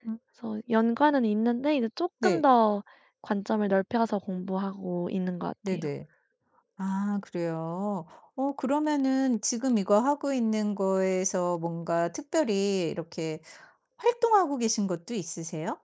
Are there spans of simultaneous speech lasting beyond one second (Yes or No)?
No